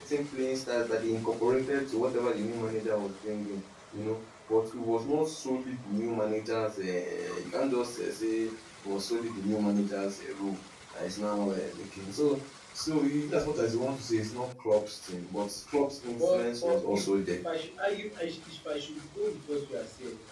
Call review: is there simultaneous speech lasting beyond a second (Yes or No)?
Yes